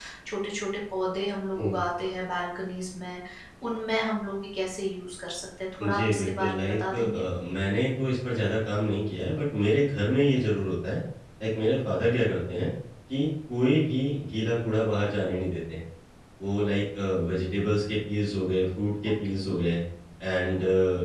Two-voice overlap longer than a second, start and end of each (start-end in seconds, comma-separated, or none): 5.8-7.2